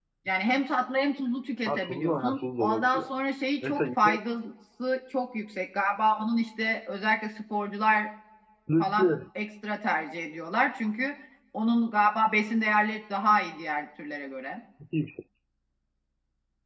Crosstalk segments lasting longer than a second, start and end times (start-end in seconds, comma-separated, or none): 1.7-3.0